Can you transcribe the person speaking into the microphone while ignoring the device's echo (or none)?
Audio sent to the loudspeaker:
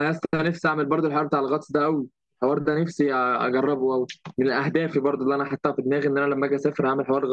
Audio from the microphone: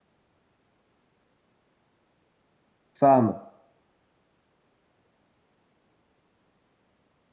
فاهمك